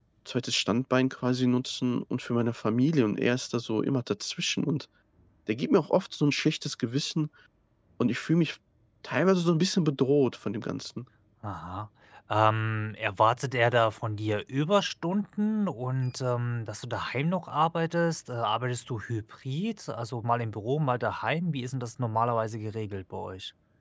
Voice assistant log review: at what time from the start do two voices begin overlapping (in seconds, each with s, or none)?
none